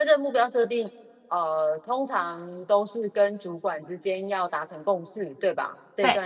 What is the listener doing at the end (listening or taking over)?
listening